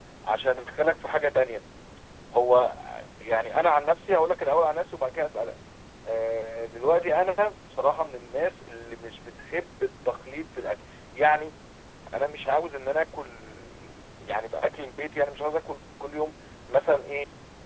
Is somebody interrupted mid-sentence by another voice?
No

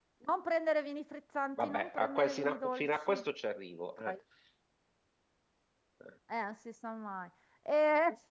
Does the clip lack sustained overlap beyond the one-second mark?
No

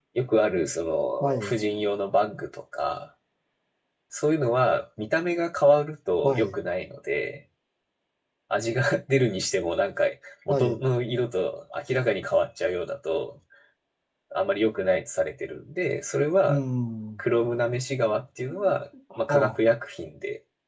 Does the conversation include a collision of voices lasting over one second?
No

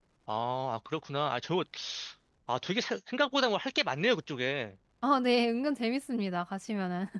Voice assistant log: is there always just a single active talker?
Yes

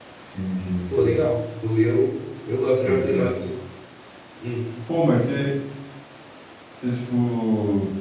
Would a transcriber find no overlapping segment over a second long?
Yes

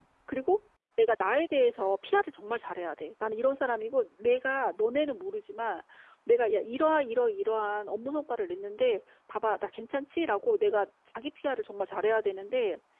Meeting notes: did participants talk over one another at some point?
No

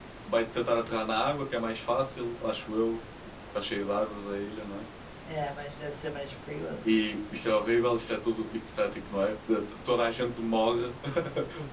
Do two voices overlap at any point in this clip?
No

